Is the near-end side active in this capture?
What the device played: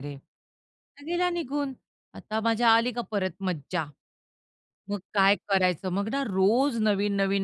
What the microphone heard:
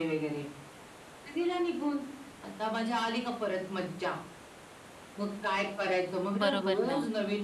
Yes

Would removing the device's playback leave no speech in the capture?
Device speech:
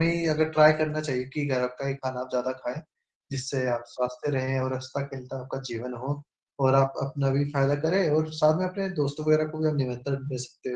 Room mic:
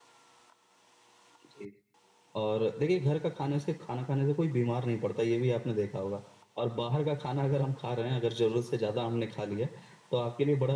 No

